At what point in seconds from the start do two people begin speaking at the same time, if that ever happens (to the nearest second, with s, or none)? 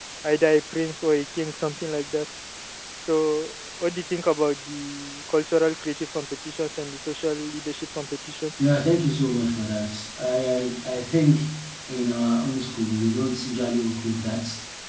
none